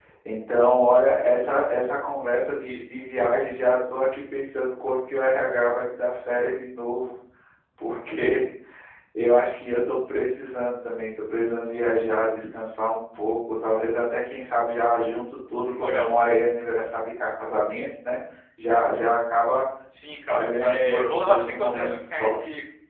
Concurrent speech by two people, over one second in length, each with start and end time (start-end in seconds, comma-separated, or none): 20.3-22.4